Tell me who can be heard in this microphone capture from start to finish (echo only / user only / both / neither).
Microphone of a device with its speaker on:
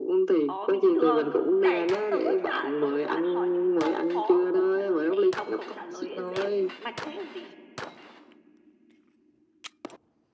both